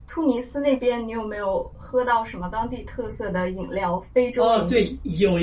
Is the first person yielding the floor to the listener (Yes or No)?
Yes